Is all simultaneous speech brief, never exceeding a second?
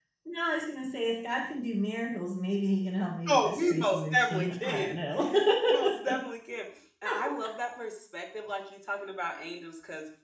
No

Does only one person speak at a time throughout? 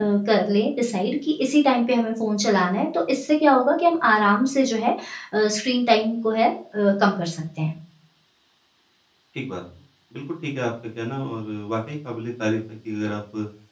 Yes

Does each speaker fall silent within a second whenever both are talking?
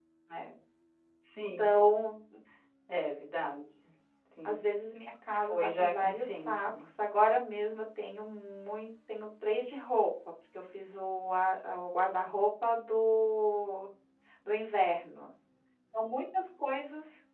No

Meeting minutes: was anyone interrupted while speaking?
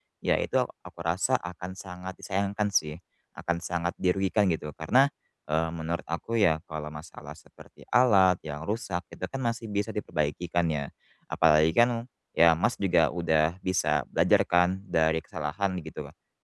No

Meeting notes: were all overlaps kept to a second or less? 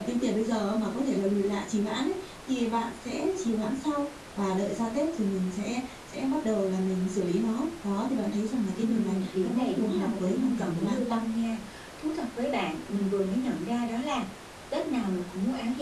No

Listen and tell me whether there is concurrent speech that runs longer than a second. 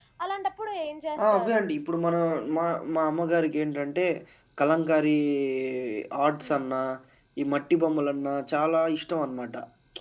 No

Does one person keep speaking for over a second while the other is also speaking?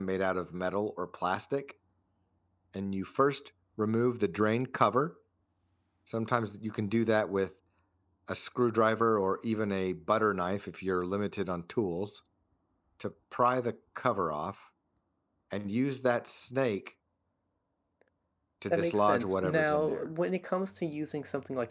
Yes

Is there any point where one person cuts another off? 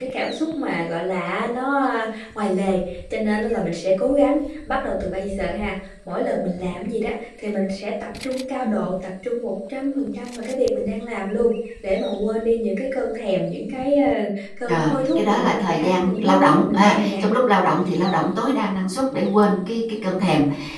Yes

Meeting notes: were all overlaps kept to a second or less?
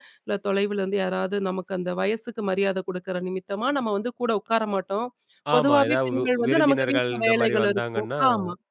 No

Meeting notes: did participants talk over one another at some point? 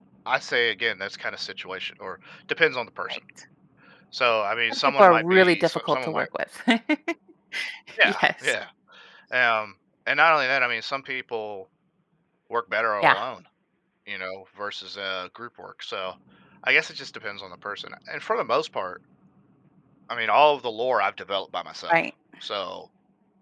Yes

